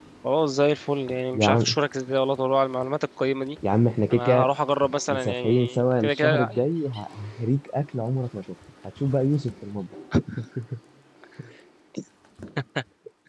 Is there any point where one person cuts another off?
Yes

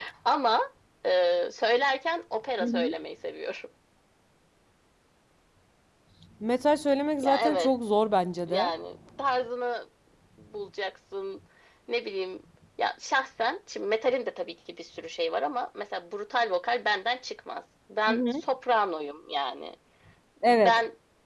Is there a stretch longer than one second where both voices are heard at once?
No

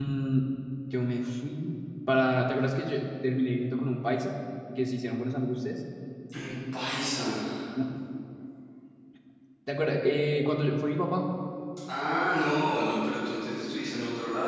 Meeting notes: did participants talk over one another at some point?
No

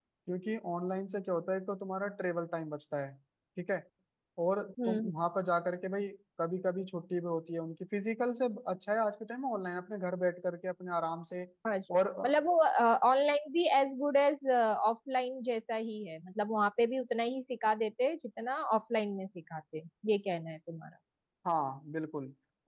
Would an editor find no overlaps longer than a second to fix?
Yes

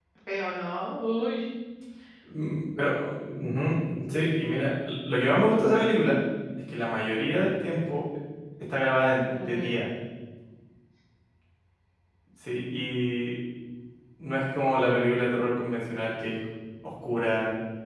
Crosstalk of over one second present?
No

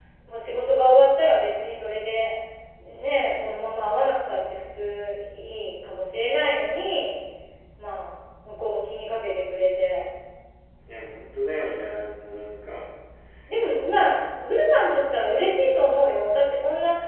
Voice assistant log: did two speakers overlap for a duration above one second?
No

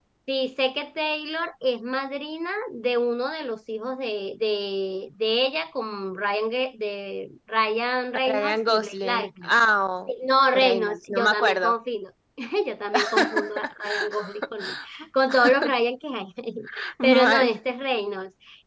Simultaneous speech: Yes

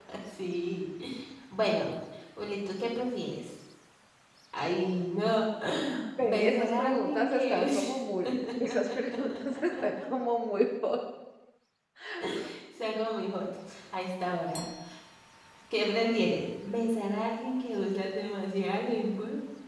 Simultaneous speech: Yes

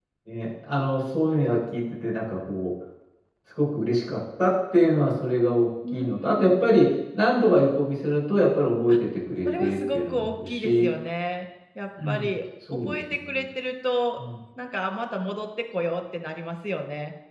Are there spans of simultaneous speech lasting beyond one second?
Yes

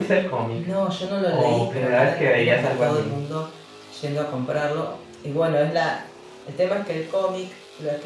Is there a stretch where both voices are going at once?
Yes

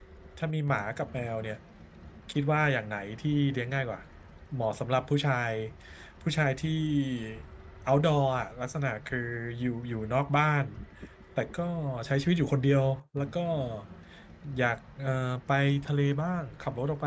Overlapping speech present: No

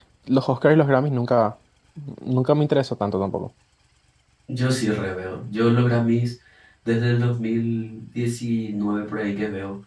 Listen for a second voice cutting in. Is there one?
No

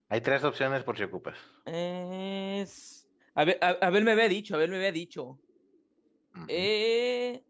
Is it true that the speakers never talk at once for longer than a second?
Yes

